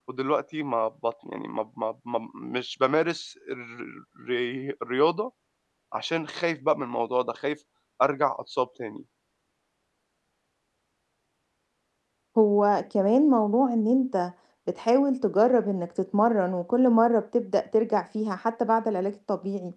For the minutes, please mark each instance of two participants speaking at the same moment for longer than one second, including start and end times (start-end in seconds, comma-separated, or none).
none